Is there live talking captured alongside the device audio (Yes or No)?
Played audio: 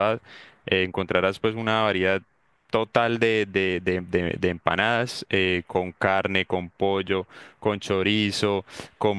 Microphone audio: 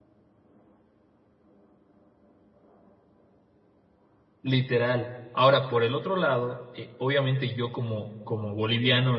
Yes